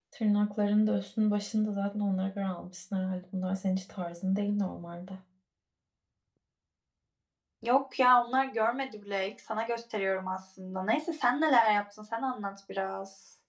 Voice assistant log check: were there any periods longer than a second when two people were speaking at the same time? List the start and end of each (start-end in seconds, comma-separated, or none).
none